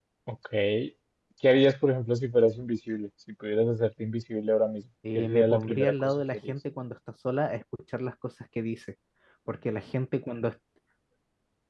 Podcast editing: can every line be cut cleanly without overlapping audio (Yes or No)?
No